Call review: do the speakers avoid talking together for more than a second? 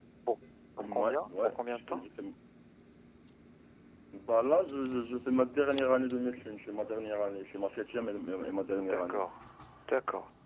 No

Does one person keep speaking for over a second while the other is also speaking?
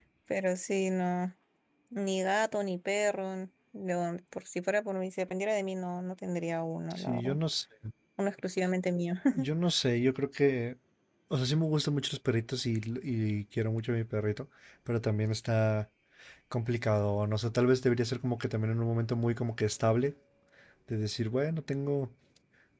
No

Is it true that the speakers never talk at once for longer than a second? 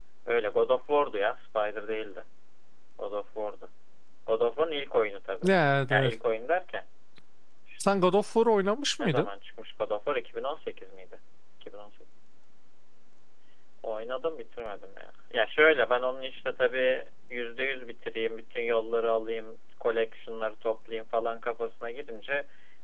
Yes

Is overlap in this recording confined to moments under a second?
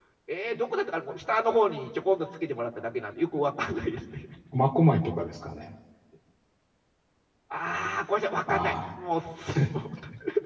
Yes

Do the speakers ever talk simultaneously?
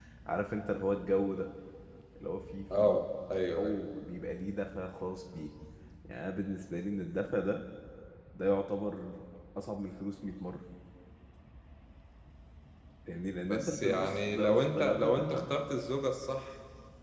Yes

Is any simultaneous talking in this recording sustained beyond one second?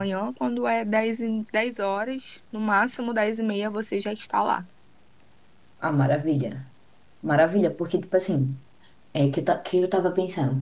No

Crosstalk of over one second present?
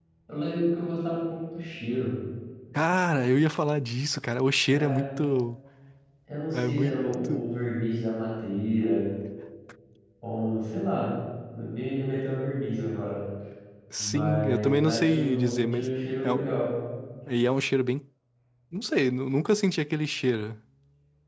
Yes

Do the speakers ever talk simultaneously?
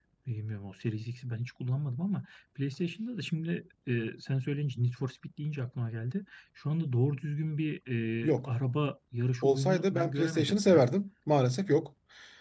Yes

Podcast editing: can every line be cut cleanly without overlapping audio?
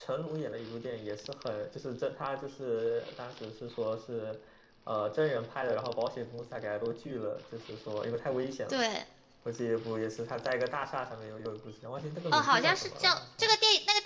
No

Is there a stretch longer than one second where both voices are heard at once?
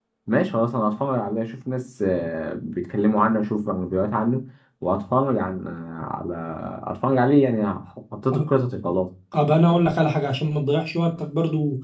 No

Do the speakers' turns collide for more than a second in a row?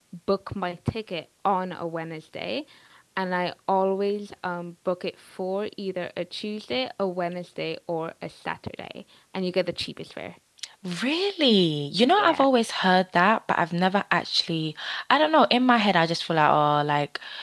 No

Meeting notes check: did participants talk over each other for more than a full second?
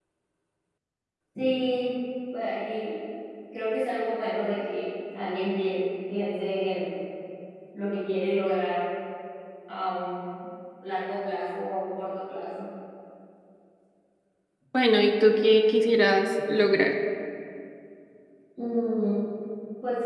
No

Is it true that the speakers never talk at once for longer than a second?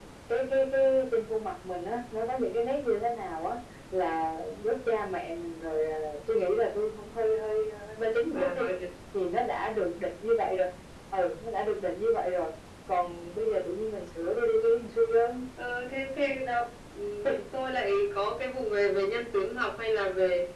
Yes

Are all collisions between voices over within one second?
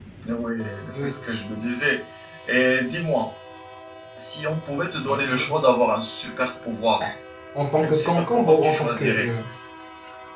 No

